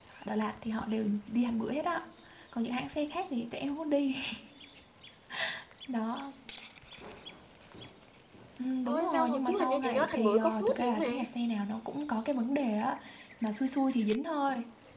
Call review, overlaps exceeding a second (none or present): present